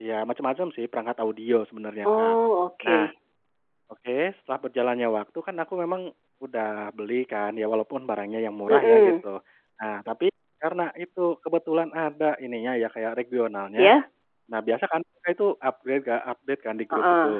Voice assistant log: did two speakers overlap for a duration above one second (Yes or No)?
No